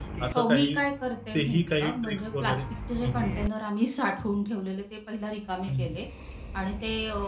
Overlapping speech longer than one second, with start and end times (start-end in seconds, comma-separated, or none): 1.3-2.6